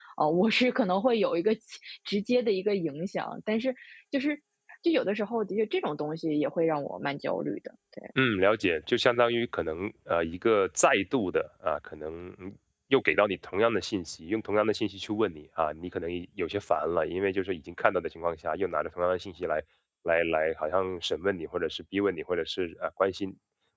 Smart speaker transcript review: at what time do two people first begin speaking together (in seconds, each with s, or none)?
none